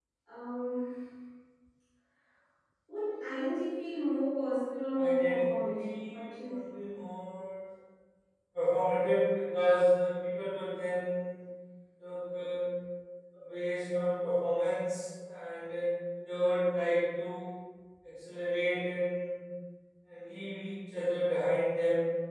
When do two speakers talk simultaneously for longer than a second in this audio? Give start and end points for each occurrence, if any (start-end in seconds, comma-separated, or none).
5.0-6.7